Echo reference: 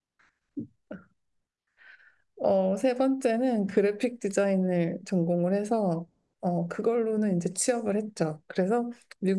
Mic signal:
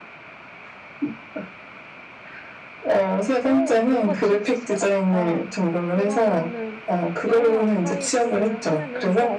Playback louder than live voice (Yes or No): Yes